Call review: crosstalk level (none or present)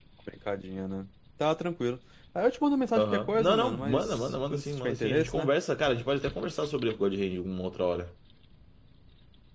present